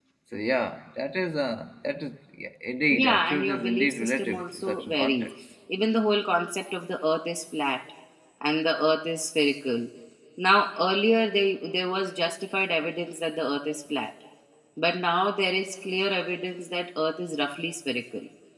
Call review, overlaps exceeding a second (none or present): present